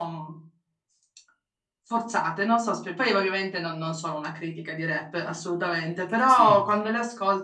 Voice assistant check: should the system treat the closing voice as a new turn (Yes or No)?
No